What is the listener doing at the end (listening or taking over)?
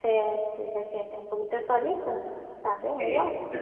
taking over